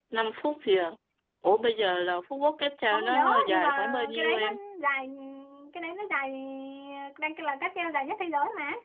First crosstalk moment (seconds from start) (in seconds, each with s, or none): 2.9 s